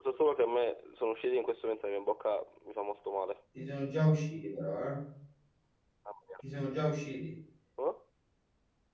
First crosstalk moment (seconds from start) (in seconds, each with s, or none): none